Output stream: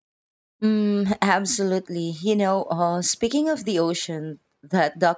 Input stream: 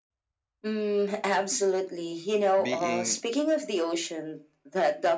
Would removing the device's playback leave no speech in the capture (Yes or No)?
No